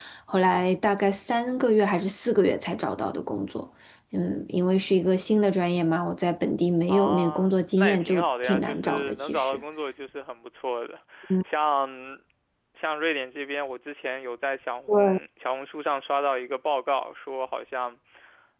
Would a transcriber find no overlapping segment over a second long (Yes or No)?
No